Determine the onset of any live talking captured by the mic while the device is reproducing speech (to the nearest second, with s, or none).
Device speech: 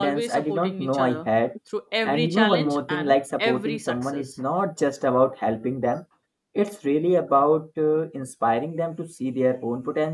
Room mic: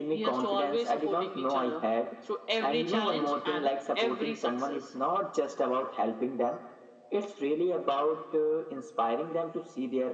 none